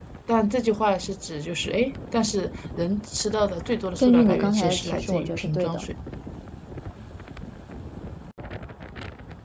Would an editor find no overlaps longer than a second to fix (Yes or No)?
No